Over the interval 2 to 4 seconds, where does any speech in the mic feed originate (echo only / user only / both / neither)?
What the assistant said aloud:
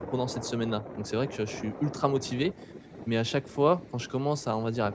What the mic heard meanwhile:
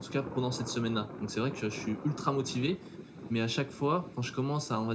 echo only